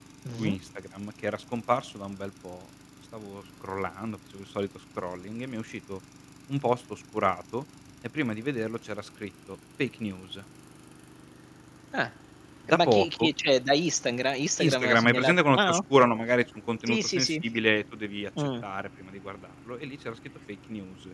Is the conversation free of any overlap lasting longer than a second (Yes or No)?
No